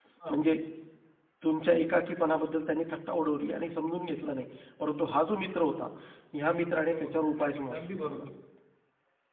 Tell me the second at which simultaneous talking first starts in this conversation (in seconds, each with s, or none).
6.9 s